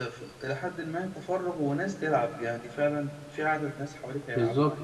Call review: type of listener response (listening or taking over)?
taking over